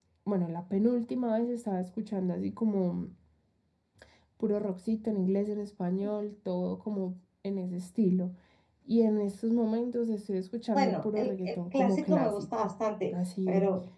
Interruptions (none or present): present